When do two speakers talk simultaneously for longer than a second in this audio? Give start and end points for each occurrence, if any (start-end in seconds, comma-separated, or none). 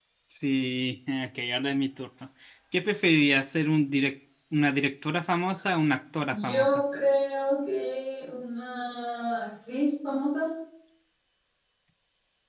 none